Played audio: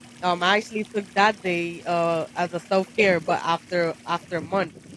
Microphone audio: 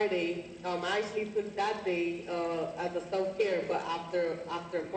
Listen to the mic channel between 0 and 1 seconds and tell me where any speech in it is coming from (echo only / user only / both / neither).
echo only